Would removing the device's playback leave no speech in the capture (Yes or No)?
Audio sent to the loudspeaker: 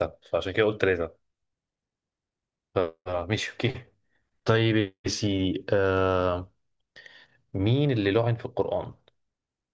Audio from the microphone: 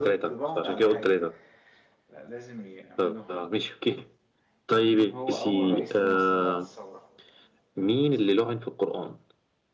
No